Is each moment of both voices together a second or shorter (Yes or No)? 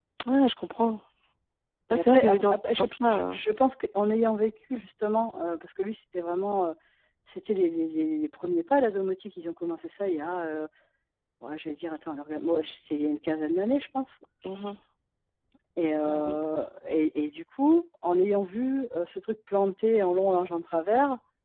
No